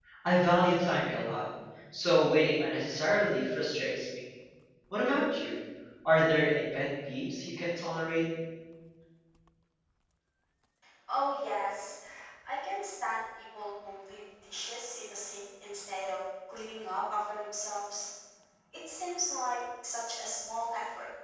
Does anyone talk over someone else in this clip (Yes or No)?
No